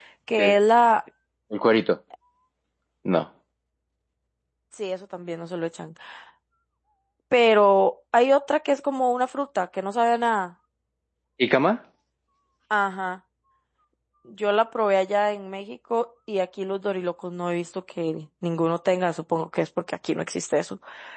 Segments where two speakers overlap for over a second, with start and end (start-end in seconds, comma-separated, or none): none